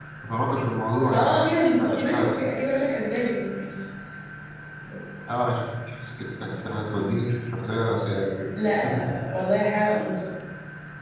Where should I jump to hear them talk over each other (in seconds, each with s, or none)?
1.1 s